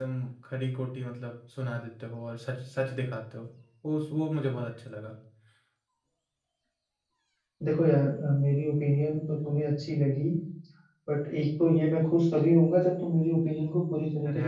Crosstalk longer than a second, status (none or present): none